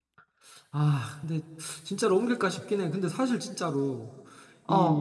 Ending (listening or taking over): listening